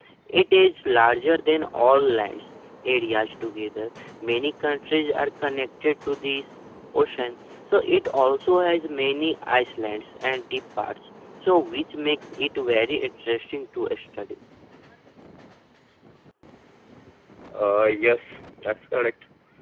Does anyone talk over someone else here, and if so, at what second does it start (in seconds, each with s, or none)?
none